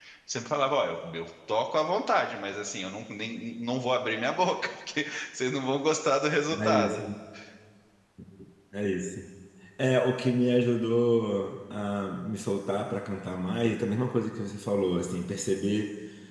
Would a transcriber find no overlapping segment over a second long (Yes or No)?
Yes